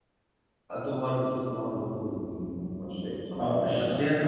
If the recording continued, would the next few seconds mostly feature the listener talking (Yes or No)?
Yes